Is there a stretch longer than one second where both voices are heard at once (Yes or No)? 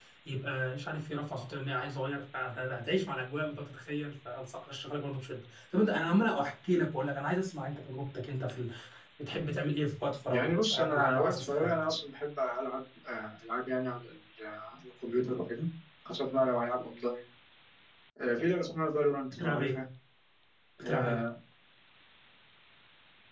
Yes